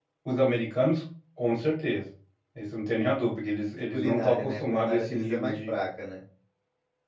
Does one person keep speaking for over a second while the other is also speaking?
Yes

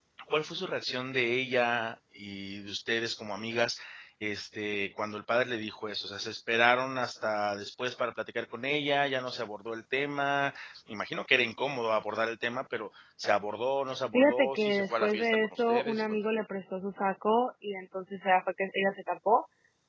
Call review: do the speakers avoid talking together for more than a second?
No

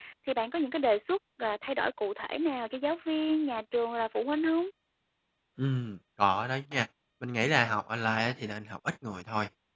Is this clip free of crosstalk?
Yes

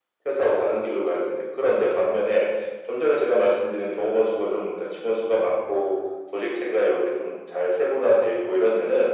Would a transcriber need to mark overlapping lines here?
No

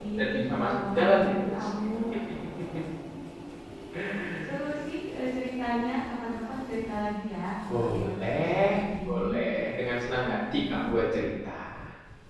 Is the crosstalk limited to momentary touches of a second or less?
No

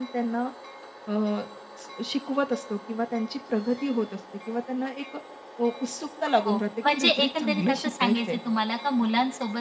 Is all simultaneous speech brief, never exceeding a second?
No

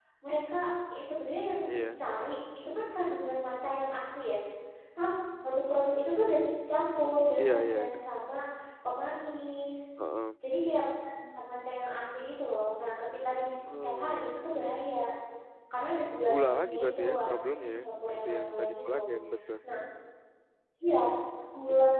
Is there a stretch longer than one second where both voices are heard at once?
Yes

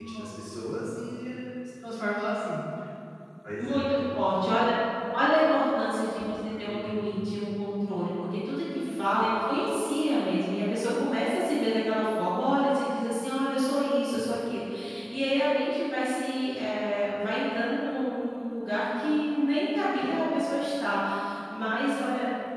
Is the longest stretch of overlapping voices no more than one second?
Yes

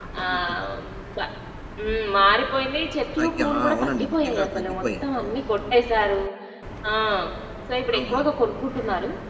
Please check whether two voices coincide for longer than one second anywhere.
Yes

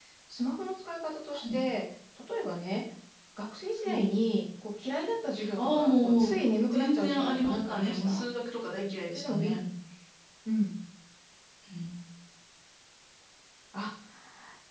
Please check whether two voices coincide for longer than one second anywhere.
Yes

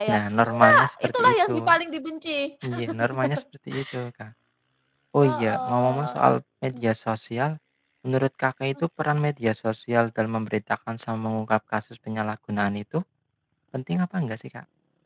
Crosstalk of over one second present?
Yes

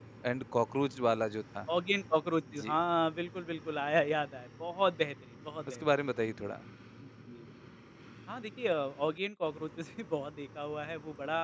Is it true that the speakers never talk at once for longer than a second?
Yes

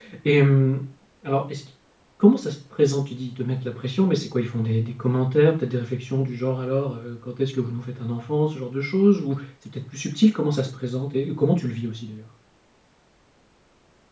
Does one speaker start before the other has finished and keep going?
No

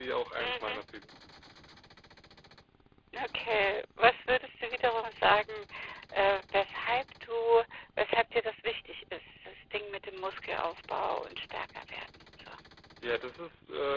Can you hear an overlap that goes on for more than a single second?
No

